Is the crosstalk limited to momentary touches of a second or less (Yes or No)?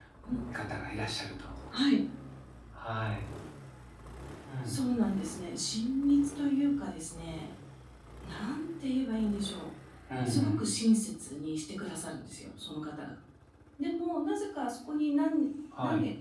Yes